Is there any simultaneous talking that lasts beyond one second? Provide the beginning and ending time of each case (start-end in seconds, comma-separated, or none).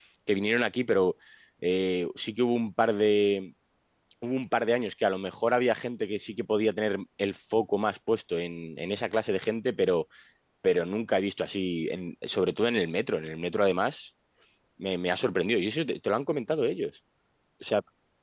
none